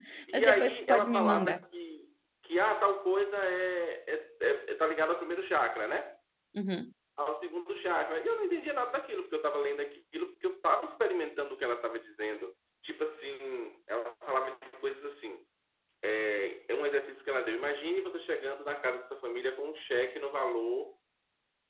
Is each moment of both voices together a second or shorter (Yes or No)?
No